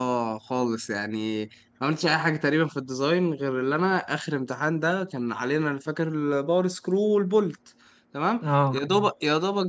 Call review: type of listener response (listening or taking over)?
listening